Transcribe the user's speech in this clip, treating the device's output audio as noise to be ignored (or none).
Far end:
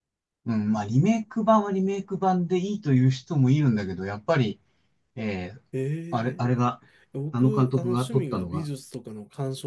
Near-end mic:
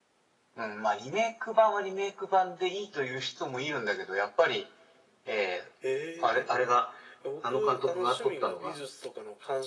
none